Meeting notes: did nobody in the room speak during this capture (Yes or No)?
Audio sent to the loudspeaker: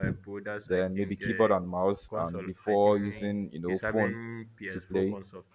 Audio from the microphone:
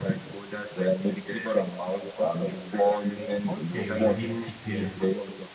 No